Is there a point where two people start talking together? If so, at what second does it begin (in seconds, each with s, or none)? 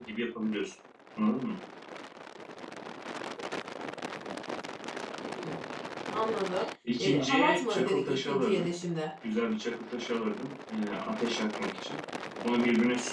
7.0 s